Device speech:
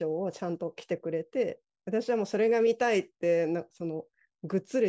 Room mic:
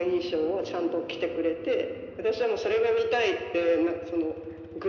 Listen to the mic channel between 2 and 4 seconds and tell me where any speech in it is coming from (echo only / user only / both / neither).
echo only